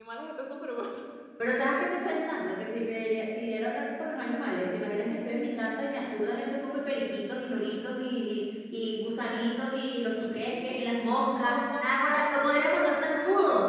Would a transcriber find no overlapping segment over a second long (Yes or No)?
No